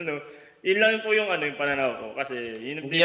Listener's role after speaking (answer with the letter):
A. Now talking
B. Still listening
A